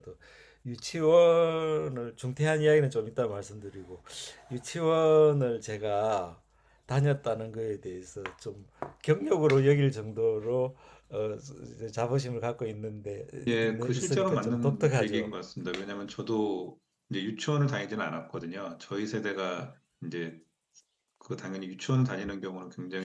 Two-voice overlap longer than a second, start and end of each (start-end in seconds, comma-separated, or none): 13.6-15.3